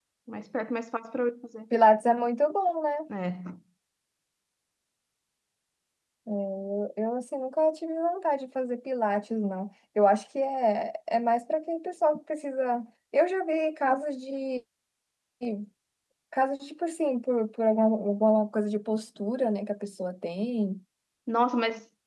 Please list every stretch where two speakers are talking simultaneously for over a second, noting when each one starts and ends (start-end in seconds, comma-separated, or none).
none